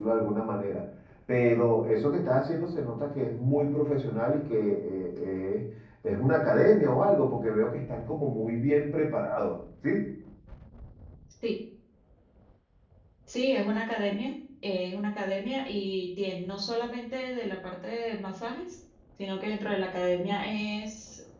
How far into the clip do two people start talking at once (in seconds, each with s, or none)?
none